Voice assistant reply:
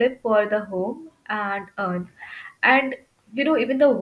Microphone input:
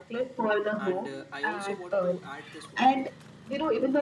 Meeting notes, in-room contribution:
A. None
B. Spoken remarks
B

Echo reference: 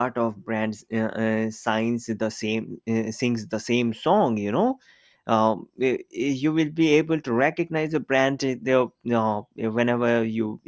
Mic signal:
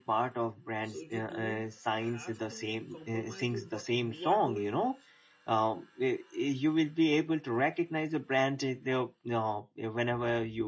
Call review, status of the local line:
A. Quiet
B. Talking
B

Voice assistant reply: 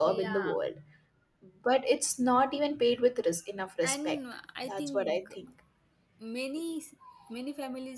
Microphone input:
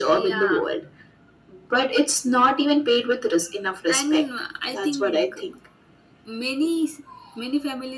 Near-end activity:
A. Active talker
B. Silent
B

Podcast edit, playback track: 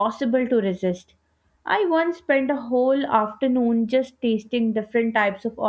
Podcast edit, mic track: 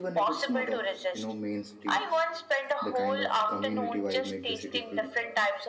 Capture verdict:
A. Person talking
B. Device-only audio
A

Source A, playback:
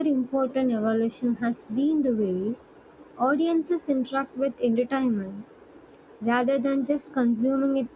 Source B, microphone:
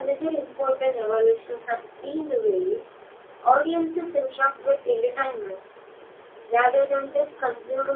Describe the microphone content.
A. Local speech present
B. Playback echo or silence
B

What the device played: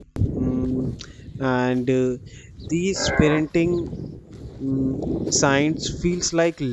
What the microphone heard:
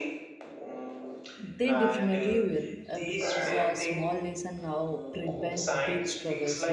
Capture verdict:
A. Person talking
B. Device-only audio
A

